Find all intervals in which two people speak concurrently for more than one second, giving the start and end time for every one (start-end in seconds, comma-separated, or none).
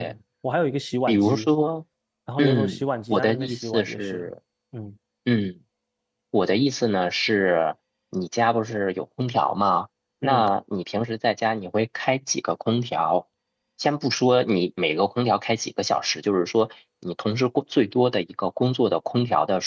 2.4-4.2